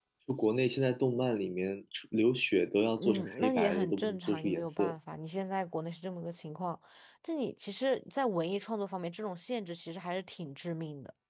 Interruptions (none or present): present